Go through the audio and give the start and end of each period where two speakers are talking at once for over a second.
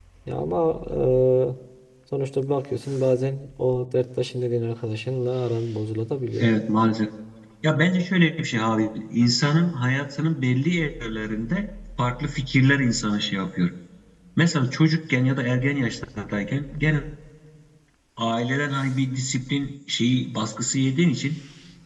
none

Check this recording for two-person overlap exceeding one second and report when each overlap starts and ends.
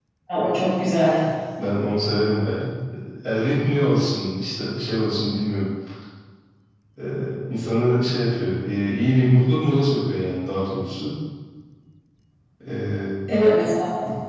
none

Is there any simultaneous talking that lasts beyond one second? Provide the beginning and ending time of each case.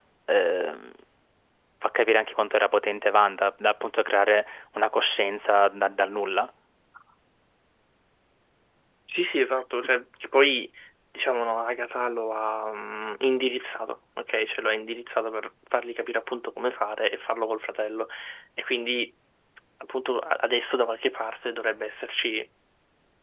none

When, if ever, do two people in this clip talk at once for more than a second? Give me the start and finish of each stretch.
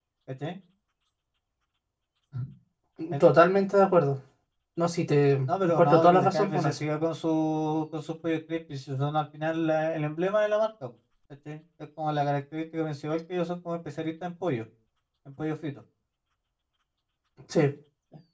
5.6-6.8

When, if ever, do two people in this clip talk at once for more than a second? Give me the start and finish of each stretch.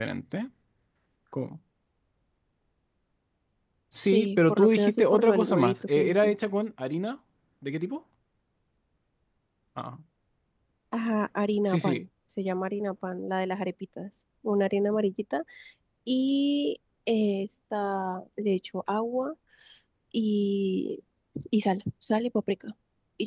3.9-6.4

